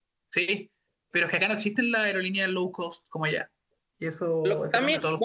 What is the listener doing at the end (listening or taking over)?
taking over